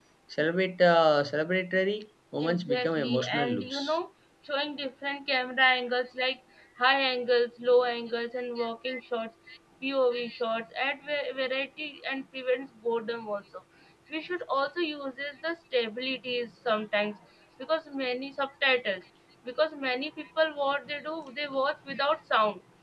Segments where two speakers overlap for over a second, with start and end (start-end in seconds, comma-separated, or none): 2.4-4.0